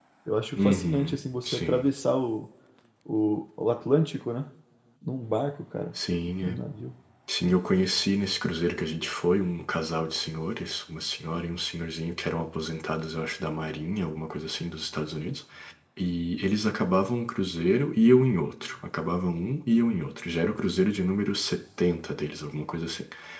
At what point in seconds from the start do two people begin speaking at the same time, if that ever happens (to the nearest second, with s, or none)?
1 s